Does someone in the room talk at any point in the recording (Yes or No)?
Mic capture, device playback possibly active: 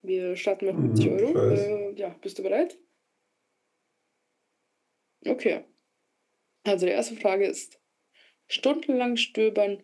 Yes